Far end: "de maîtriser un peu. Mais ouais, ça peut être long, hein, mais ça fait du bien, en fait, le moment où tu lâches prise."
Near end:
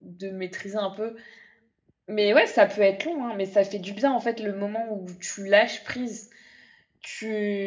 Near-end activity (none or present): none